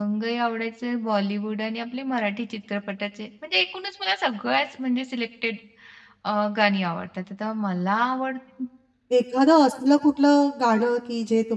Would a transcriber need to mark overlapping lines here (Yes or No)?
No